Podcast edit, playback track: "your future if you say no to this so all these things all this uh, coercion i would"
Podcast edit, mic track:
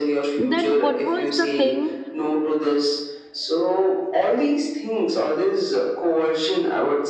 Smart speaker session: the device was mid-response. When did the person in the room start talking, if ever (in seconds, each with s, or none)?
0.4 s